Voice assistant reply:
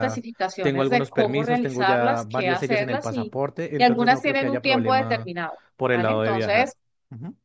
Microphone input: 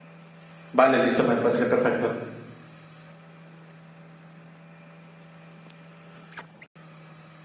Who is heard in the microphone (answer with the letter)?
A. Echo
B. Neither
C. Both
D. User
D